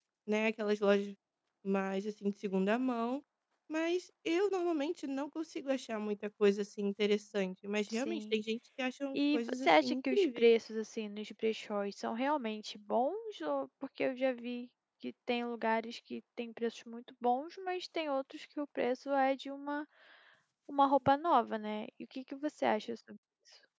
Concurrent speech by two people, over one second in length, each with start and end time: 9.1-10.5

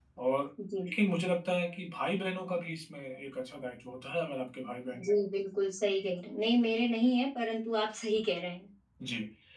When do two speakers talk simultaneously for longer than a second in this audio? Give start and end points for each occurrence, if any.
none

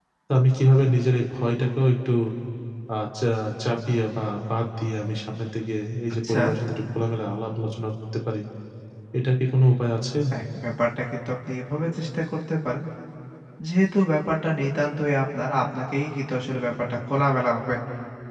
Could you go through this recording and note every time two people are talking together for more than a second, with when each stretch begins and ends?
none

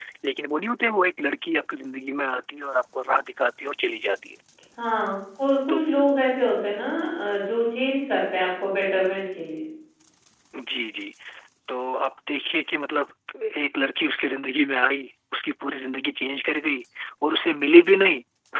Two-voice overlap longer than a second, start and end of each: none

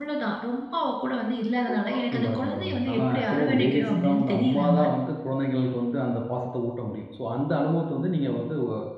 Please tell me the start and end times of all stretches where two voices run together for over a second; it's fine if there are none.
2.0-4.8

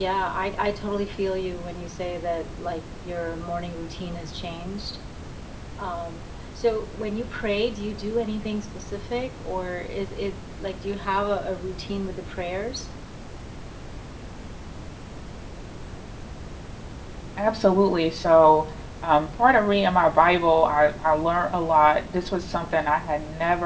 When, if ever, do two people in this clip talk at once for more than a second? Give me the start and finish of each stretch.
none

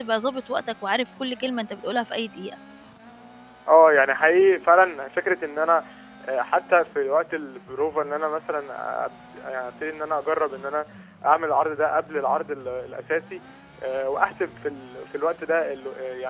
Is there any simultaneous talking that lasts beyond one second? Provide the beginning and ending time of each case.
none

